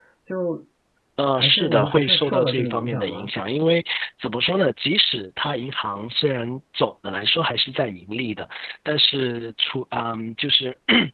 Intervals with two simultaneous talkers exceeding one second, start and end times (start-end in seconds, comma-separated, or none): 1.4-3.3